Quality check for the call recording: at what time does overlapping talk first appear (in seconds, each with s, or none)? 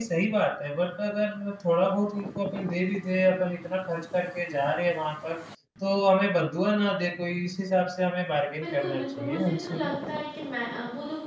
8.6 s